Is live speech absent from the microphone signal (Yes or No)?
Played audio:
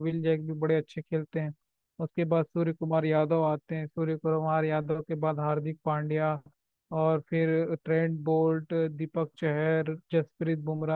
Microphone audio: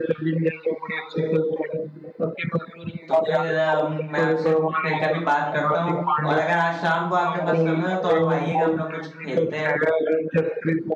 No